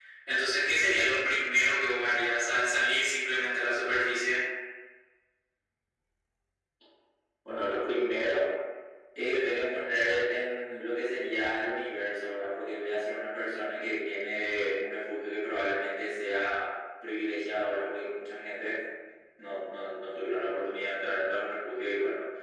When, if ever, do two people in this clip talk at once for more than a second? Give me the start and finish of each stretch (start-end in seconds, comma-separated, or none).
none